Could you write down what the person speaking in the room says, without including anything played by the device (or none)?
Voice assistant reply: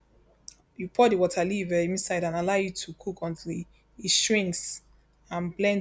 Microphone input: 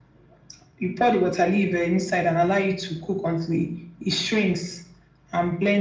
none